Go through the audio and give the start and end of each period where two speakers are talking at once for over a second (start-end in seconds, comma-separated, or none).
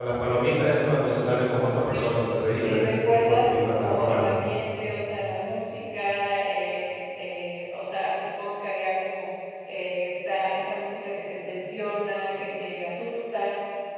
2.6-4.2